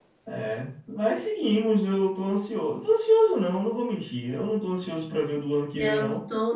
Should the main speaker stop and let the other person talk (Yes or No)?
Yes